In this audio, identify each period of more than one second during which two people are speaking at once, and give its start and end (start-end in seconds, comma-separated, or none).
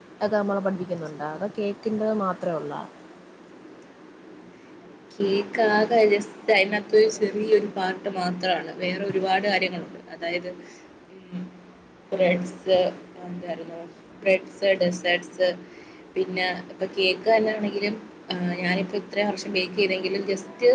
none